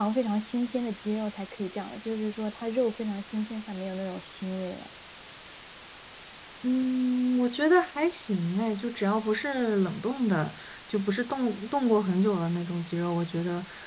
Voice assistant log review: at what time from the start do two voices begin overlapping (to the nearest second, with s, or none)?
none